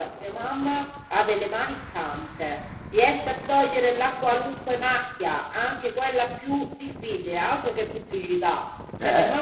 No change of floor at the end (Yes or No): Yes